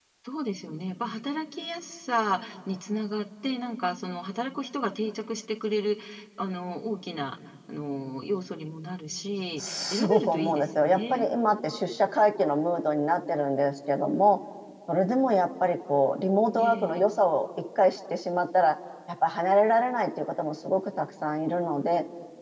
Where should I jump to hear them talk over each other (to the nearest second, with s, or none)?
10 s